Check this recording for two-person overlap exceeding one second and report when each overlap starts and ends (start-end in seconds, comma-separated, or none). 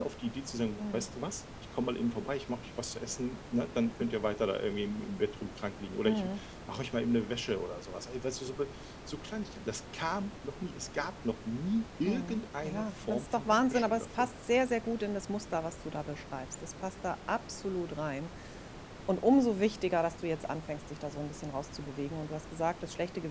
12.0-14.3